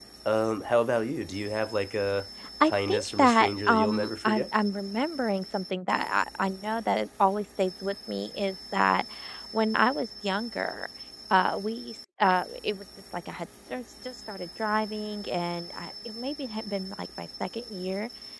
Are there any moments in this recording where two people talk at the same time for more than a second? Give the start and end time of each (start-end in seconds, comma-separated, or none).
2.6-4.4